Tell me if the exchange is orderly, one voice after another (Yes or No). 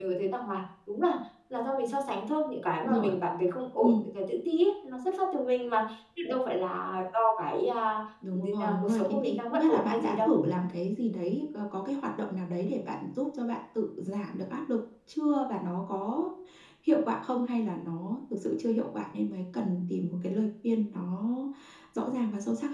No